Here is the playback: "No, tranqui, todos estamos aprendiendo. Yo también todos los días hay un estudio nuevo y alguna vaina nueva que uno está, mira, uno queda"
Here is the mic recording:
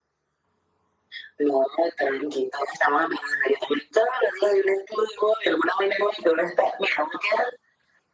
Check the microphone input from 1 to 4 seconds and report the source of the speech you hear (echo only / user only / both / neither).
echo only